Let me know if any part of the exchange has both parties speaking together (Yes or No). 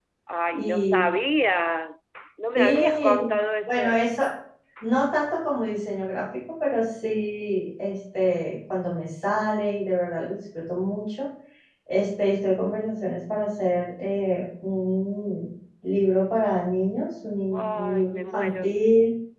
Yes